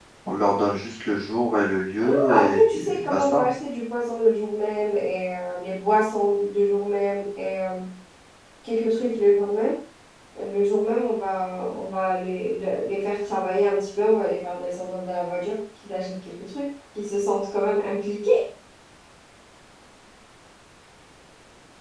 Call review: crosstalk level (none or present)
present